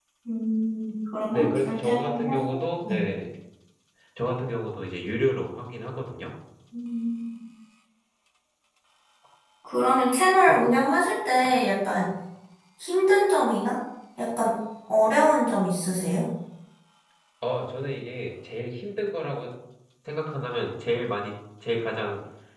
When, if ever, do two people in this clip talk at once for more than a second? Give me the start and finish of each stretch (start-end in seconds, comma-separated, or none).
1.3-3.0